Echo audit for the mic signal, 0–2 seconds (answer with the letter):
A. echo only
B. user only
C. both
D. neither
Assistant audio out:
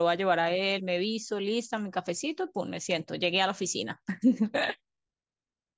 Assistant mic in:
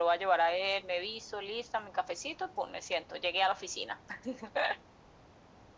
A